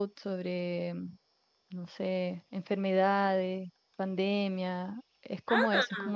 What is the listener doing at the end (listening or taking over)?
listening